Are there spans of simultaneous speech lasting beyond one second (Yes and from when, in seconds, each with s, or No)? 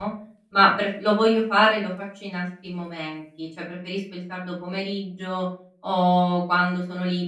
No